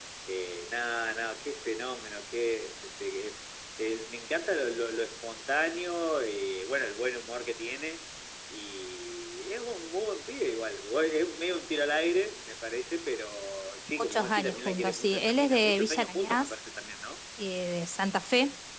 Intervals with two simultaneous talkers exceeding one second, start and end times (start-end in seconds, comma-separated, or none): 14.0-16.5